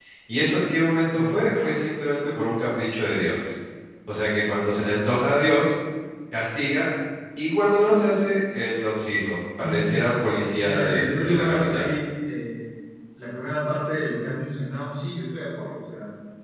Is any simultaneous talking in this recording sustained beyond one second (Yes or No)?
Yes